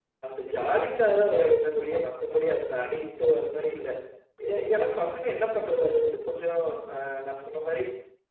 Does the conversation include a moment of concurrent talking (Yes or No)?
No